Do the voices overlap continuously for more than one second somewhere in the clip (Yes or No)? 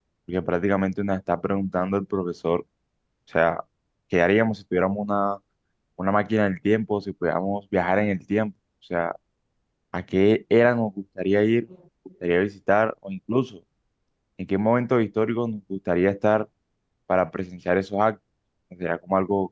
No